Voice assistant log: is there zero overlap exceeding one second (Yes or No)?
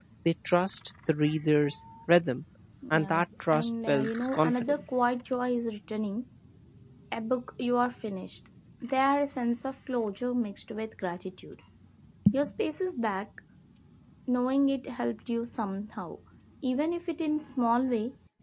No